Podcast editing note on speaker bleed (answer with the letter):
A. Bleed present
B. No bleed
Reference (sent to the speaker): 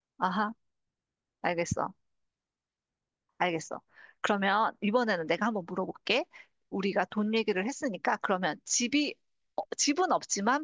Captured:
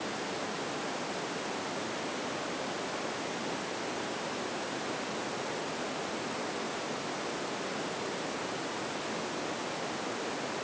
B